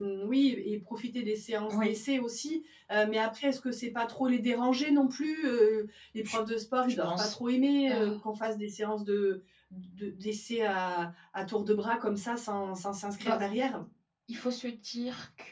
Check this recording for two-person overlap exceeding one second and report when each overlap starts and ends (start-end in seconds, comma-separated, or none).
none